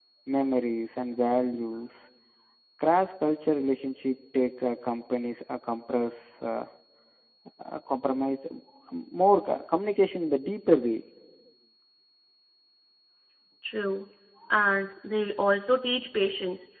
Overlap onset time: none

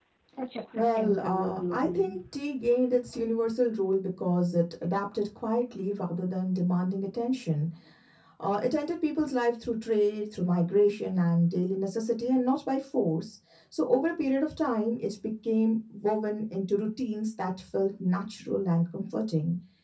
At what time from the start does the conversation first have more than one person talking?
0.7 s

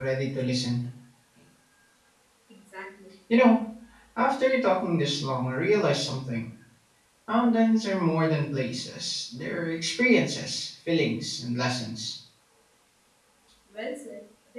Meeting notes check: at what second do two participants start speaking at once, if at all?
none

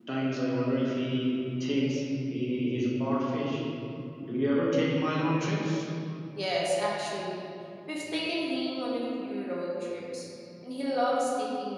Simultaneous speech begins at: none

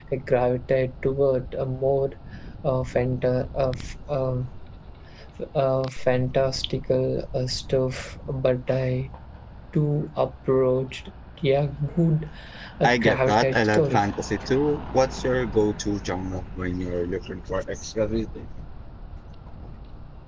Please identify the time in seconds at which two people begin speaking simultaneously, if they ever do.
12.8 s

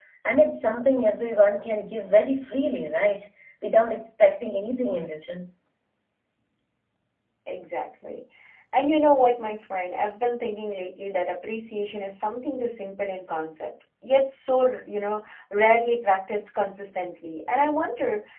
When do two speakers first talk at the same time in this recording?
none

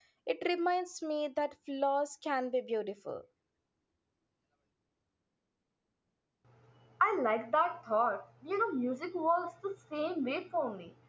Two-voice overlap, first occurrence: none

